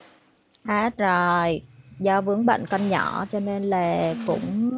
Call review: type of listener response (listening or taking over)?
listening